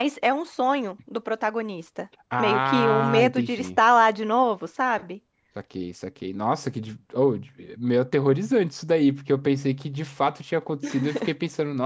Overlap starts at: 2.4 s

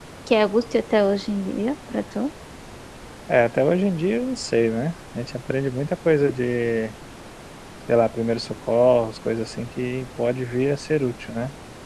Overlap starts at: none

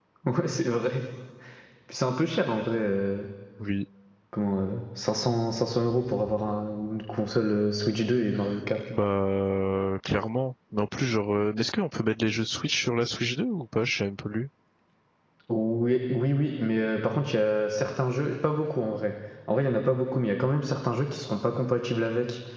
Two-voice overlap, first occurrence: none

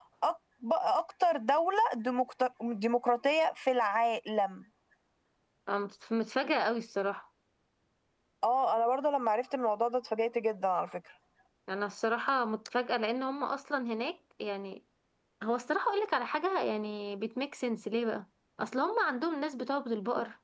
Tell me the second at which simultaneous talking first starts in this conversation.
none

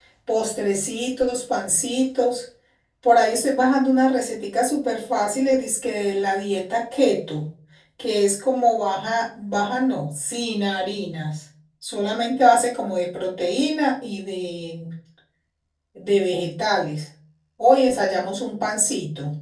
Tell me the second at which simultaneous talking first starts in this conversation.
none

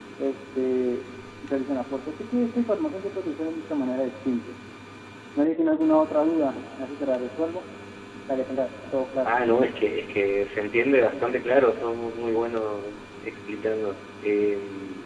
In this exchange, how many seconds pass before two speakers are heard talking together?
none

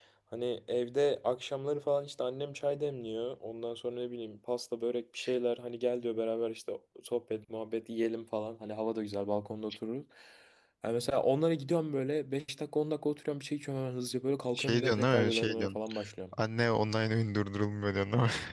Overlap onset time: 14.5 s

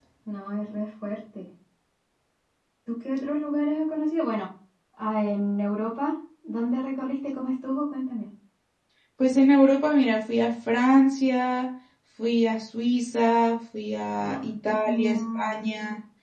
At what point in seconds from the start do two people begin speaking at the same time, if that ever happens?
14.2 s

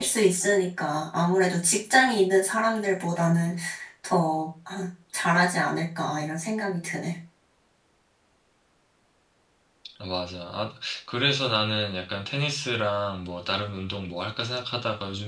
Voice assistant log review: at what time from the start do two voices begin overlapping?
none

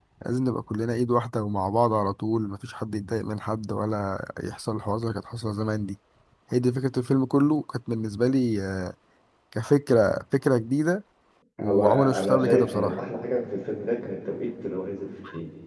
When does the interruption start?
11.6 s

